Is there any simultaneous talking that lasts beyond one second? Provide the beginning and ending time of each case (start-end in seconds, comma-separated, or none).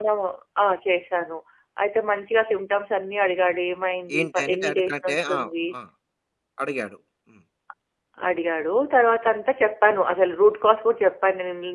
4.2-5.4